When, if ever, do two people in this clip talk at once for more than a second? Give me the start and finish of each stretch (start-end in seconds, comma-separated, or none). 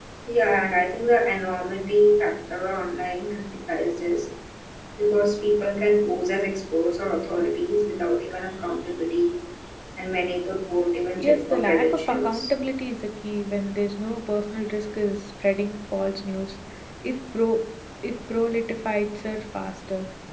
11.2-12.5